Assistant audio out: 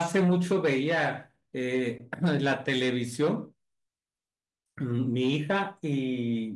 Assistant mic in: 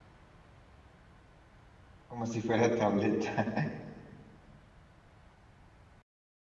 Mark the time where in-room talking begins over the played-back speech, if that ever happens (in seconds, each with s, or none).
2.1 s